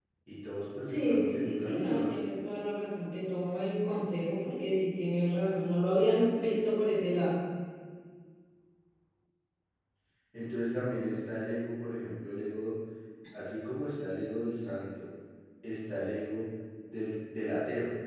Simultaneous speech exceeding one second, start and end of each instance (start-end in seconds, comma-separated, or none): 0.9-2.1